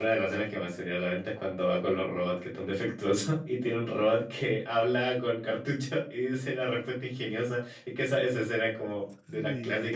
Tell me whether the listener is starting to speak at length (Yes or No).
Yes